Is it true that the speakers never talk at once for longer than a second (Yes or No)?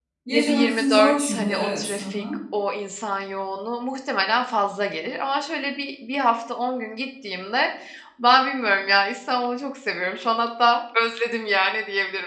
No